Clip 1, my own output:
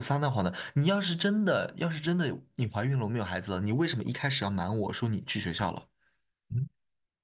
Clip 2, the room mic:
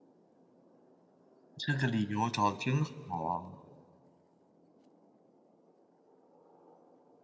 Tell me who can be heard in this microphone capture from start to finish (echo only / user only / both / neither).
user only